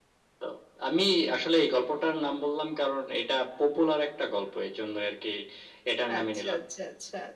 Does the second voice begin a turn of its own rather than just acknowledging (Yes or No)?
Yes